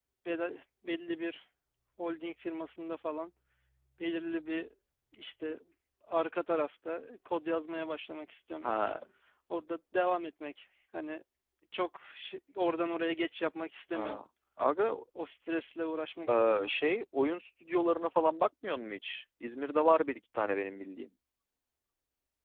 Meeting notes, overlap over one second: none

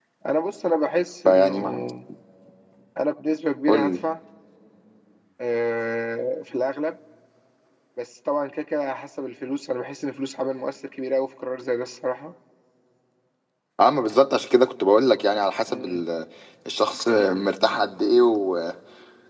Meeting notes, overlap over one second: none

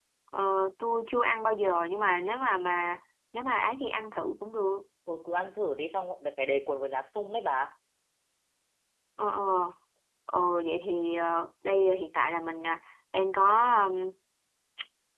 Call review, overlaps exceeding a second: none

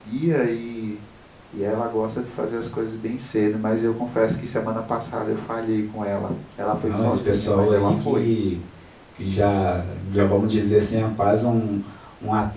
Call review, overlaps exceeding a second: present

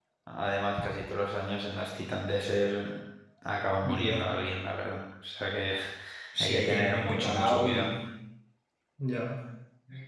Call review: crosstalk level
present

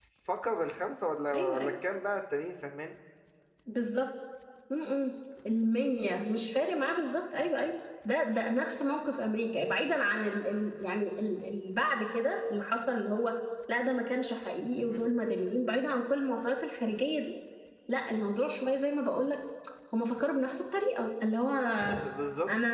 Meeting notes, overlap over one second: none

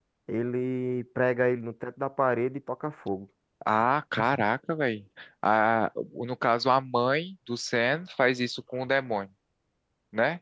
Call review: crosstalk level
none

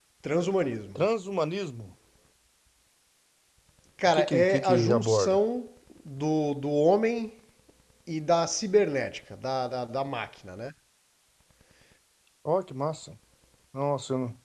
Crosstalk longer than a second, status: present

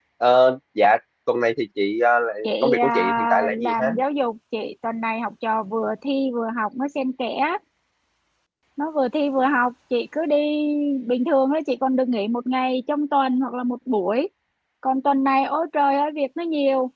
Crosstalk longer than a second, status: present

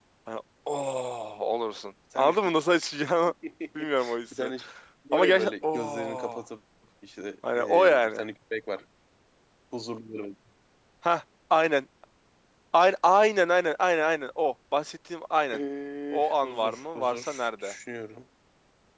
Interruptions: present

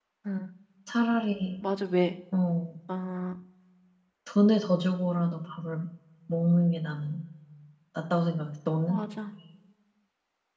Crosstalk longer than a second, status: none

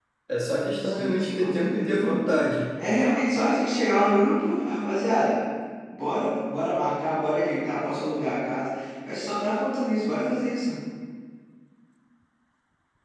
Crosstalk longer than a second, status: present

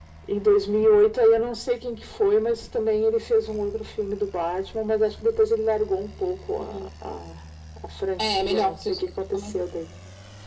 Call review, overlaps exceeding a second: present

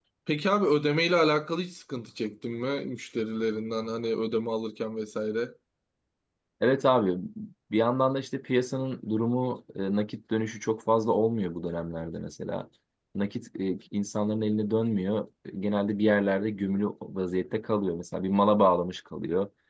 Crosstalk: none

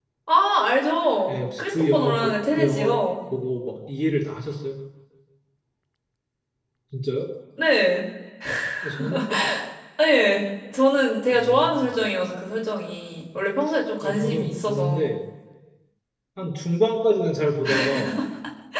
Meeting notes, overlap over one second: present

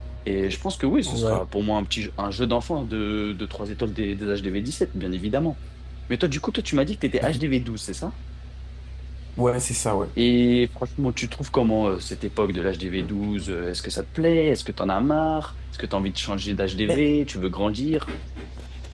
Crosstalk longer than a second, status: none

